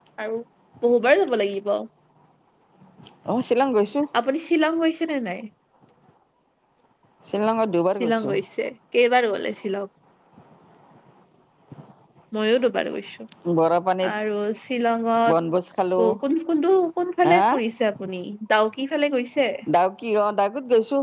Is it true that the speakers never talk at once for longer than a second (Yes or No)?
Yes